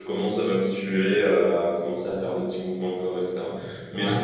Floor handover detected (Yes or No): No